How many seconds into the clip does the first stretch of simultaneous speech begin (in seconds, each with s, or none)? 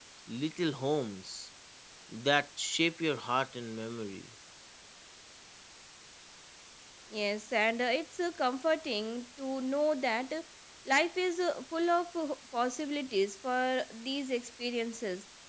none